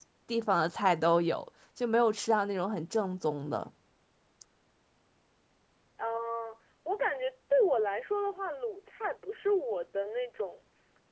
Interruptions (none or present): none